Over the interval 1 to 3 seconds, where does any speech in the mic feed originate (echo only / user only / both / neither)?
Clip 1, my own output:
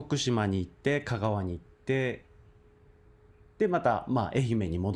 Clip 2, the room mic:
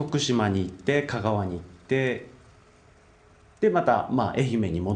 echo only